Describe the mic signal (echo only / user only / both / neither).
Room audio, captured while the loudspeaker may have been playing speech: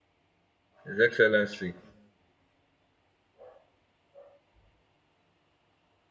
user only